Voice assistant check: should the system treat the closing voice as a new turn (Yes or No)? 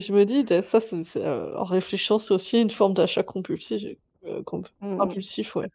Yes